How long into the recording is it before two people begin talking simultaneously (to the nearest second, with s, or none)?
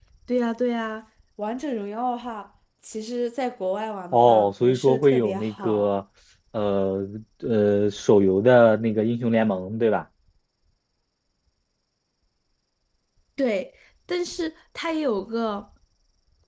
4 s